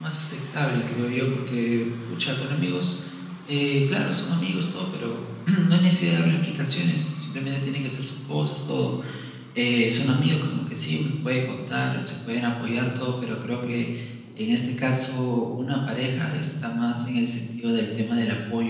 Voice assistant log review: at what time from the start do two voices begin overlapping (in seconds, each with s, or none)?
none